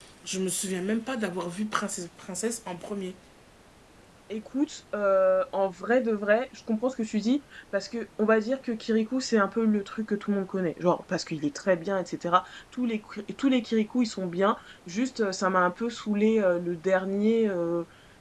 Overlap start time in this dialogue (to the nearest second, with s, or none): none